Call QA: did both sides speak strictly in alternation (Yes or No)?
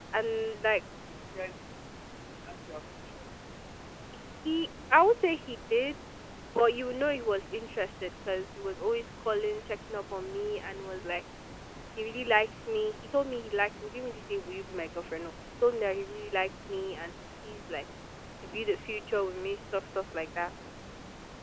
Yes